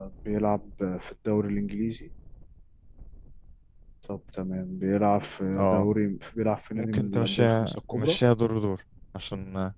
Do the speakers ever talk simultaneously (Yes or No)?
Yes